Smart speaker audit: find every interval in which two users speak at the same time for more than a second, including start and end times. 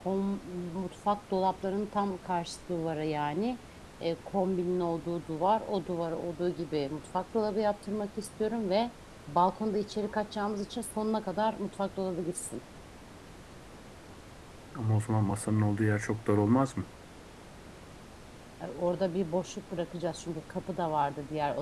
none

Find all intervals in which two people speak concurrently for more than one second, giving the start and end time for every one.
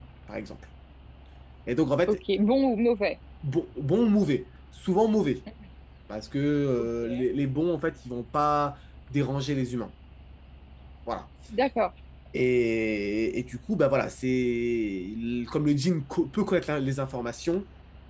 none

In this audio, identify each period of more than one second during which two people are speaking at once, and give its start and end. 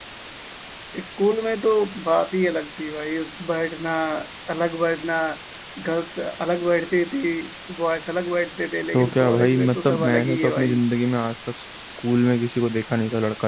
8.9-10.8

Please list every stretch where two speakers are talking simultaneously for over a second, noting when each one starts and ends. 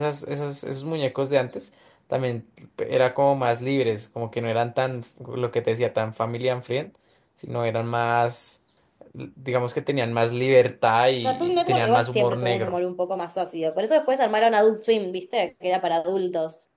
11.2-12.8

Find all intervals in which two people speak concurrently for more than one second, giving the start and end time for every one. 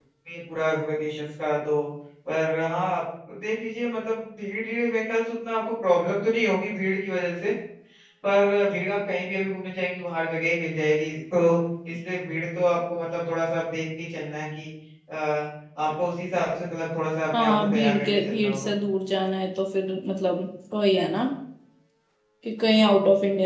17.4-18.7

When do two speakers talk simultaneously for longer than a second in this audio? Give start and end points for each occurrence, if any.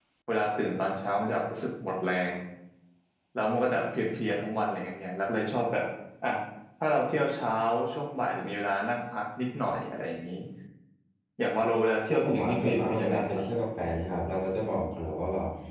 12.1-13.4

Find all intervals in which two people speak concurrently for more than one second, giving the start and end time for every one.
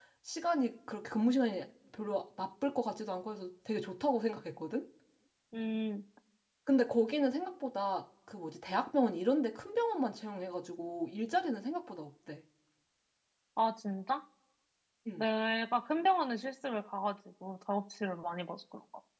none

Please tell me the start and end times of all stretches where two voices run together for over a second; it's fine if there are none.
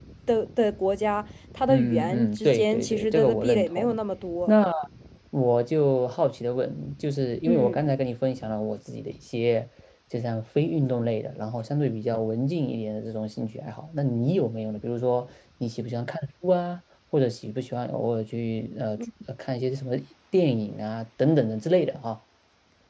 1.7-4.0

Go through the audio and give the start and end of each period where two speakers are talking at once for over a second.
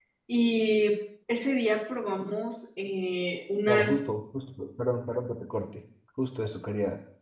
none

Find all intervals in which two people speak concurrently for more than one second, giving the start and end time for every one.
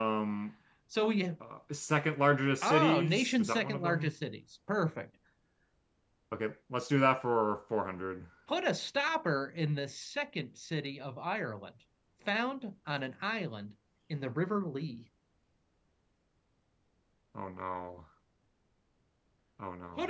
2.6-4.1

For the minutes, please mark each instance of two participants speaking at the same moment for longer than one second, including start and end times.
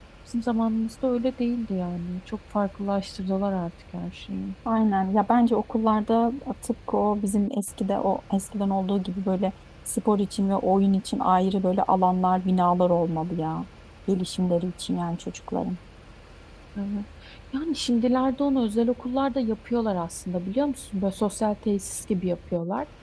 none

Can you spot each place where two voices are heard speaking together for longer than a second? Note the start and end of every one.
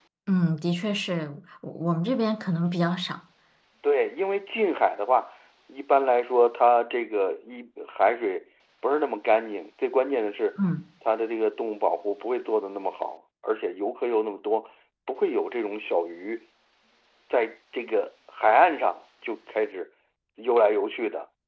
none

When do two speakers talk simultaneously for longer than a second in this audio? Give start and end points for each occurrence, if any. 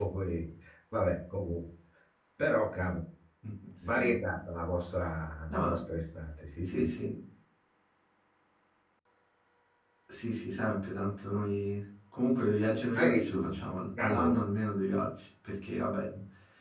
none

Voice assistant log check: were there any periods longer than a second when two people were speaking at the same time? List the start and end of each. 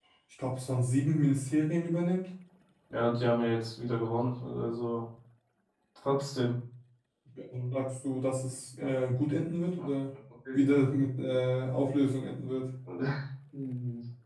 none

